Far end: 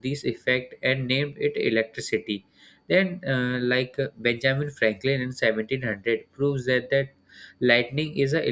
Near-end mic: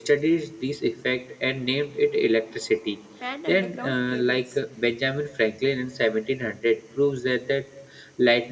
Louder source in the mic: echo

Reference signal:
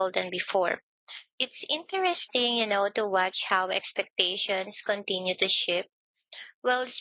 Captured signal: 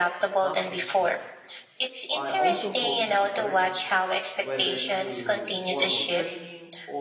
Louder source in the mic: echo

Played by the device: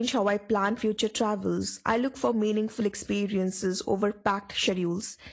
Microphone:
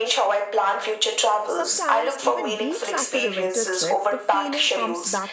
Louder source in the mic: echo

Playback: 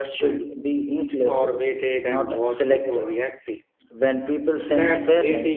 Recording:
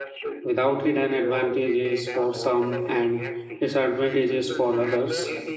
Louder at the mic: user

